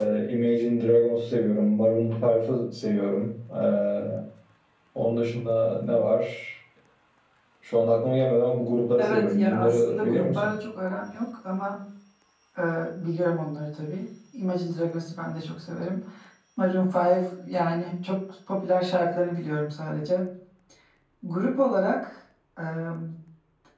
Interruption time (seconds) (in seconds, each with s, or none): 9.0 s